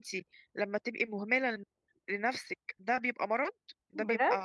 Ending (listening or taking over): listening